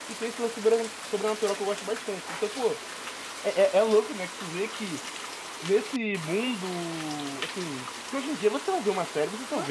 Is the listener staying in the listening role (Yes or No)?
No